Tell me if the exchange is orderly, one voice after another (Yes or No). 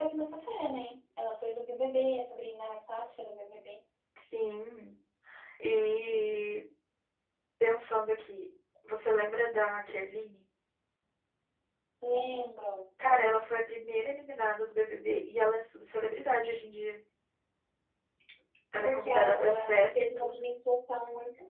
No